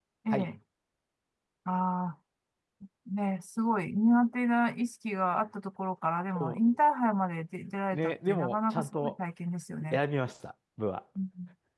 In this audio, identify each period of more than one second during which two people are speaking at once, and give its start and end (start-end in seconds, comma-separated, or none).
7.9-9.1